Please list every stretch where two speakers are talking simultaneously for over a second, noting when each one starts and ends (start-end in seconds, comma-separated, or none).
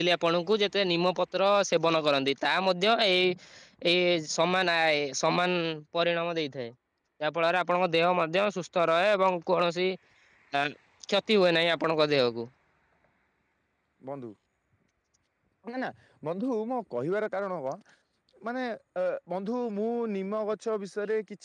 none